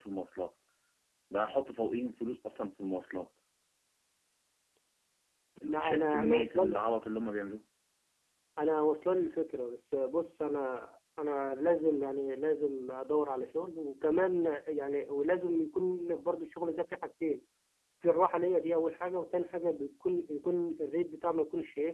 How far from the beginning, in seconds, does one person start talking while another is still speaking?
5.6 s

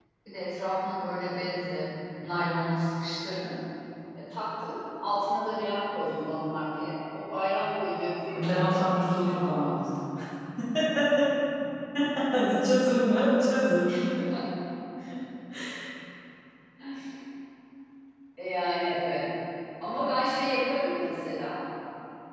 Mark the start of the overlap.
8.3 s

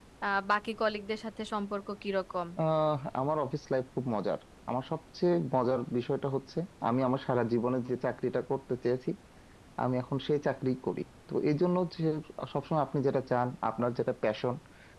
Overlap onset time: none

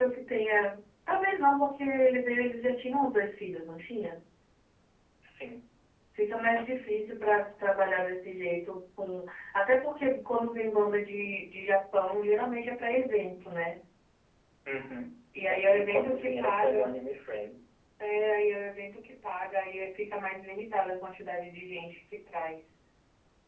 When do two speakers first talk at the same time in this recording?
15.5 s

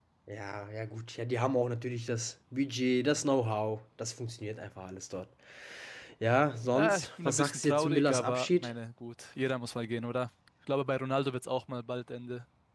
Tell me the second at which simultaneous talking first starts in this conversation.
6.8 s

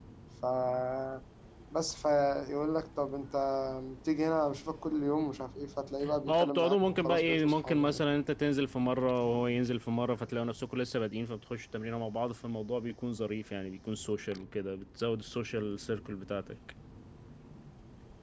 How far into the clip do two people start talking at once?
6.3 s

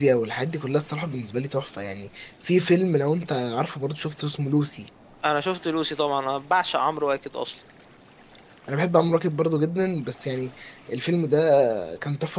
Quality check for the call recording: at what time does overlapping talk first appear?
none

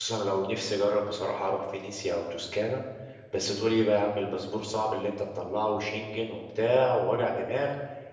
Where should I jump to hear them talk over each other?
none

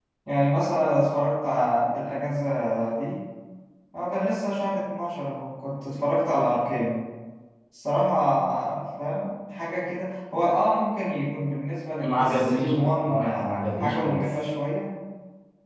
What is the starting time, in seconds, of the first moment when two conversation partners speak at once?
12.0 s

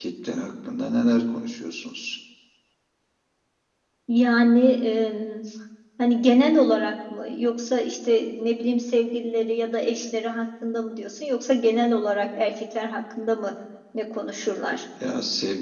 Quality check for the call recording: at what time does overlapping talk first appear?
none

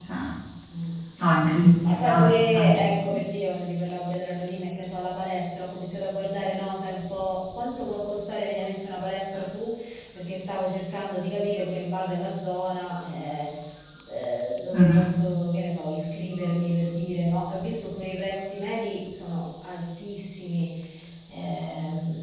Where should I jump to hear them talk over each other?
1.8 s

